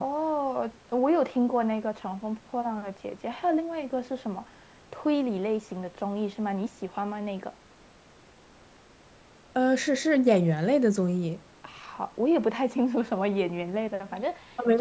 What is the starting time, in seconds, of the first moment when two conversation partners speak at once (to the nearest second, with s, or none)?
none